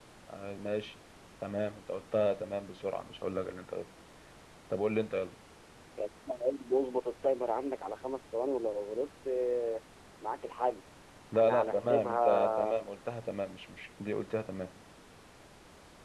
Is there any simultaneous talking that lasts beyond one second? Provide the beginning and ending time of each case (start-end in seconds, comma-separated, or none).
11.3-12.7